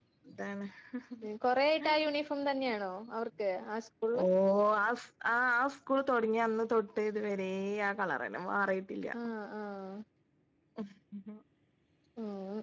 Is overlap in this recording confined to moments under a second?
Yes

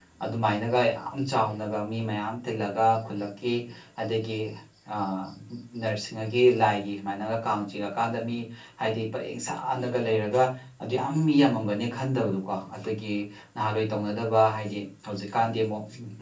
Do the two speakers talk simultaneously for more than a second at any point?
No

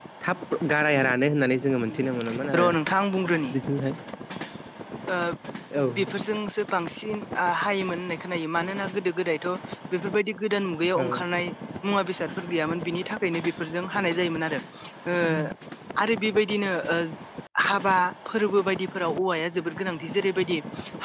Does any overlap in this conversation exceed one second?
No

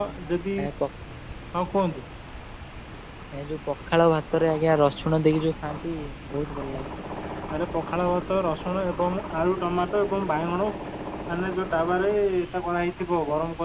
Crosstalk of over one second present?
No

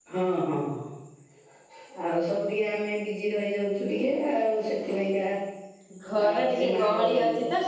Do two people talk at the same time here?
Yes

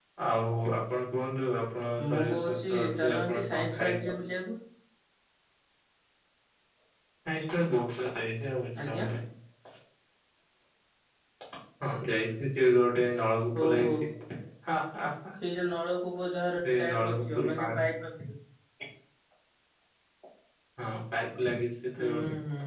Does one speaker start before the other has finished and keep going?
Yes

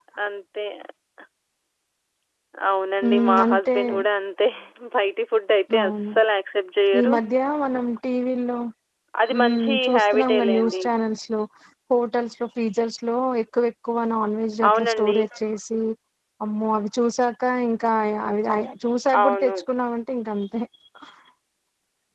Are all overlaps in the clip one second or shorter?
No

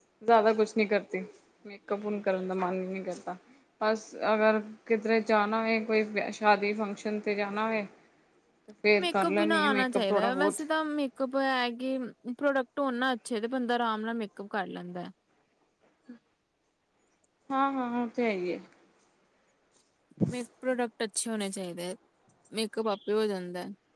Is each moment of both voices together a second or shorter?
No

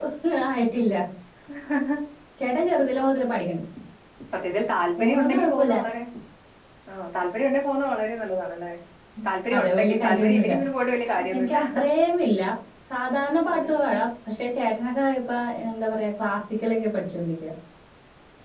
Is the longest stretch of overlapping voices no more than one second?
No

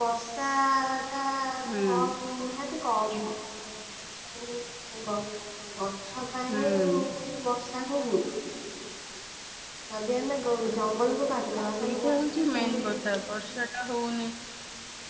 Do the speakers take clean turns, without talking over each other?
No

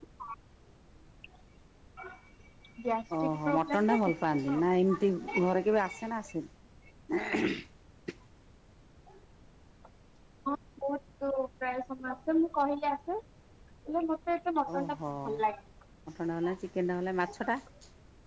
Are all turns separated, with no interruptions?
No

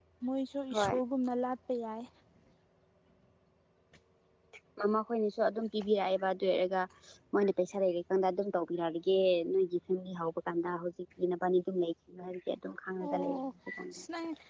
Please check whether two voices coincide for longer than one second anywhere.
No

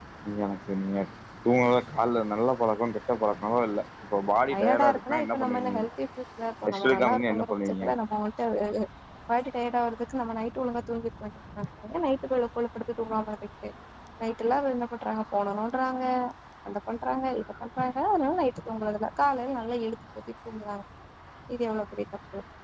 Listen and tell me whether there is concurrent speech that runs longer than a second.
Yes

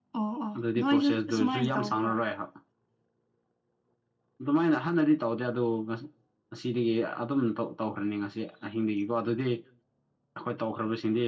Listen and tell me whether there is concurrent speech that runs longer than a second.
Yes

